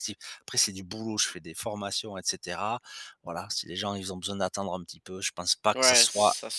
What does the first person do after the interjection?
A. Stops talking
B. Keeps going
A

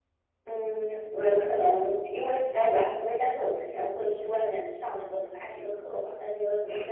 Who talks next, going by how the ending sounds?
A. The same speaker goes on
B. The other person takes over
A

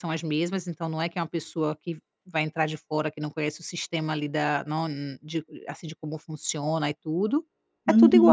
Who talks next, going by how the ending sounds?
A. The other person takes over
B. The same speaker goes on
A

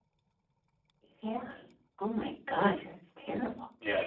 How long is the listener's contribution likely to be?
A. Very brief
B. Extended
B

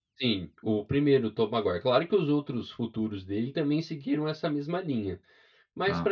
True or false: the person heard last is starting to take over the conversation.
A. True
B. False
A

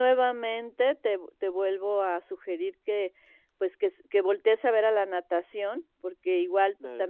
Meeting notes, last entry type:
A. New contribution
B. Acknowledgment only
B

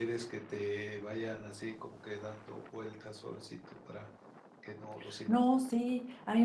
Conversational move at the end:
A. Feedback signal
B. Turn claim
B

